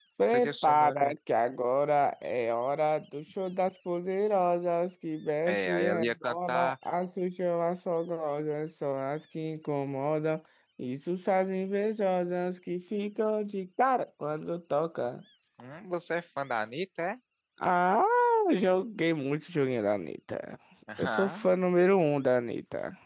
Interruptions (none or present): present